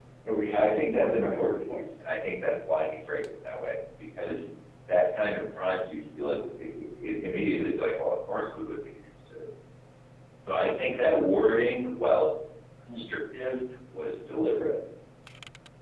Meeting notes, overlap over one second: present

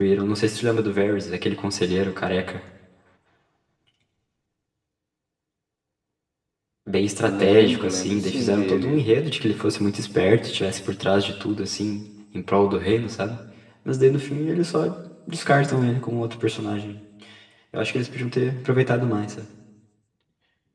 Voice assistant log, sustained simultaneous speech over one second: present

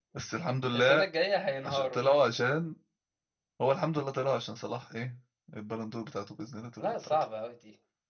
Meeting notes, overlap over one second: none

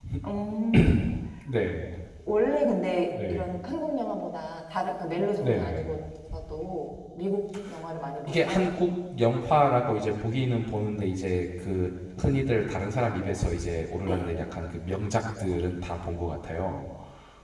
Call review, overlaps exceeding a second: none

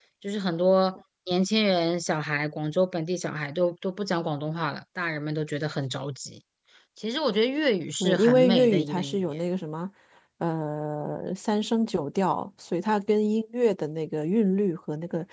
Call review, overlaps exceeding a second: present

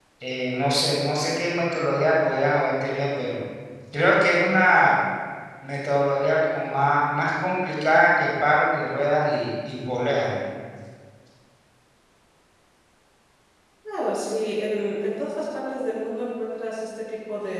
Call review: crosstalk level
none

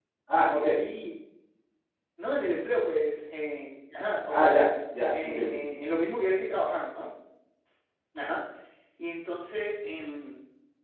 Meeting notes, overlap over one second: none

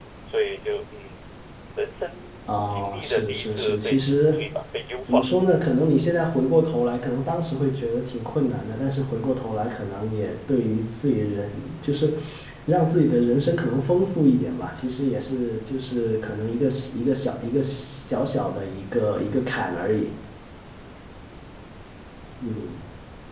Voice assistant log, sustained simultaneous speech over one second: present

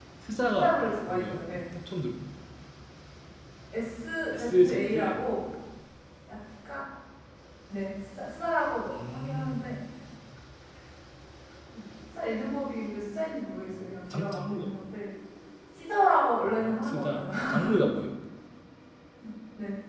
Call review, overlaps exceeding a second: present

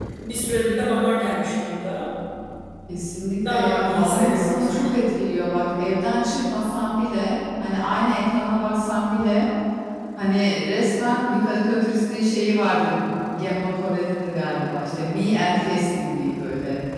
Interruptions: present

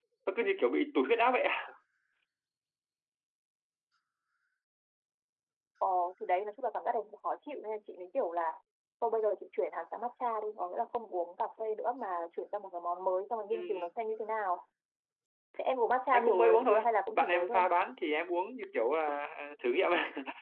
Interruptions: present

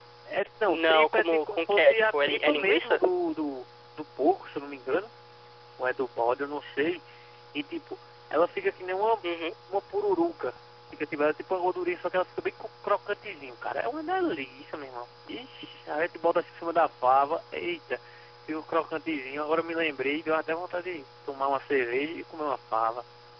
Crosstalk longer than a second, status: present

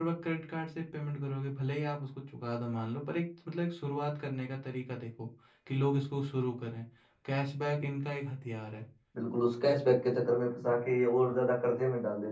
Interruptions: none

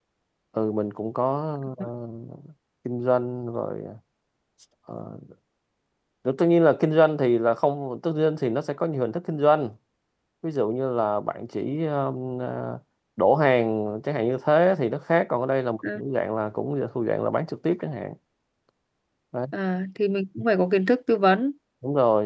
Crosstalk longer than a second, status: none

